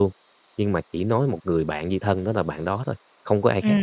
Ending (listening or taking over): taking over